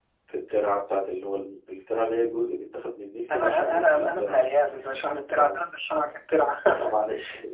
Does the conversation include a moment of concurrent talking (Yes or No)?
Yes